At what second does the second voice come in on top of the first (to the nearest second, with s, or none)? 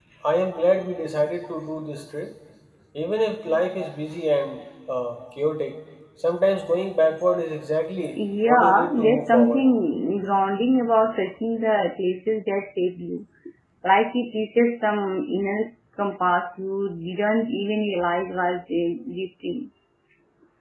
8 s